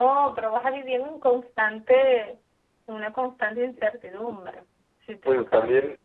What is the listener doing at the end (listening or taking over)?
taking over